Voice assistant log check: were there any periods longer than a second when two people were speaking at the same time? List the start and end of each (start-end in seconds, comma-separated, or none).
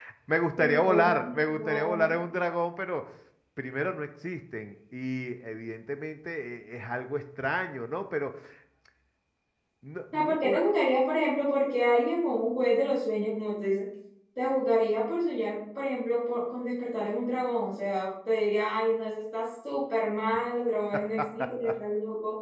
0.6-2.1